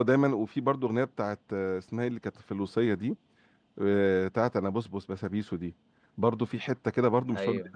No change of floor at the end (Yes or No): Yes